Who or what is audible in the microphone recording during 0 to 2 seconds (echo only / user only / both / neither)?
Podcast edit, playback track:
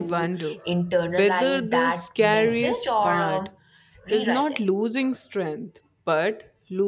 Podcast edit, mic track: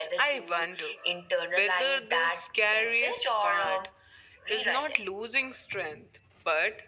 echo only